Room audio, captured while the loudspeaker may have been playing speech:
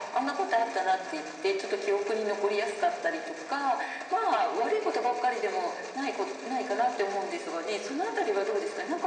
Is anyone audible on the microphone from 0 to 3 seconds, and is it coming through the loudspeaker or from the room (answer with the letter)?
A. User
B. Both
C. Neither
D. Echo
D